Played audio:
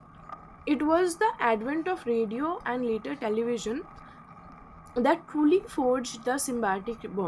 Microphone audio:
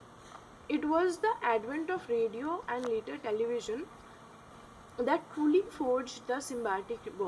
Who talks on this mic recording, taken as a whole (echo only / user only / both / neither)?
echo only